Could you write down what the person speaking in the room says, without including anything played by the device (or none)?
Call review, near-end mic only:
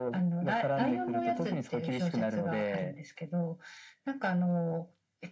うーん、